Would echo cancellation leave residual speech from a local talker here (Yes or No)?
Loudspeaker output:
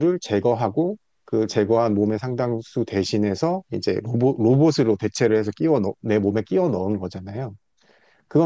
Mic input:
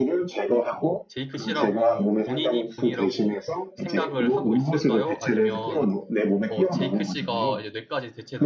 Yes